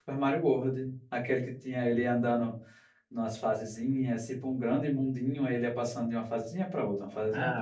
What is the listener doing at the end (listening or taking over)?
taking over